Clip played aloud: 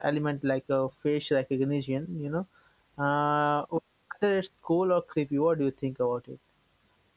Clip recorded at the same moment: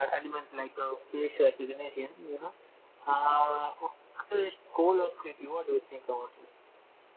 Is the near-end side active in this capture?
No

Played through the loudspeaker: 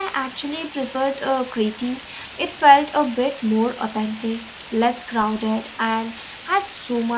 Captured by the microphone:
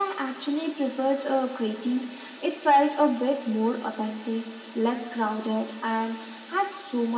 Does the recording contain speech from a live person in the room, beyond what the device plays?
No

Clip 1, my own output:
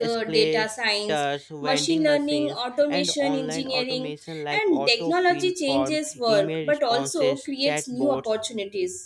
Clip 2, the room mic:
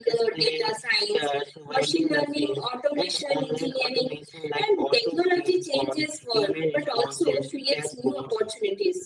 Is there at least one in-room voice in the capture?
No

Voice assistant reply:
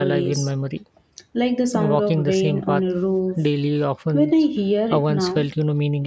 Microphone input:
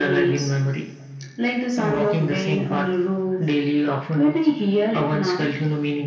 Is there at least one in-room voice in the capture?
No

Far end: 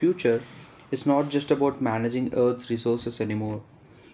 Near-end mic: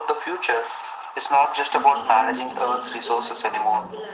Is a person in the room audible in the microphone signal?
Yes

